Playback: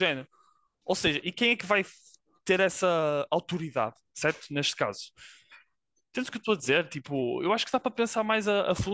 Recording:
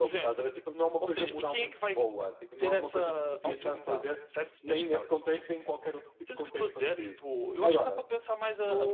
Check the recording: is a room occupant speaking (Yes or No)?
Yes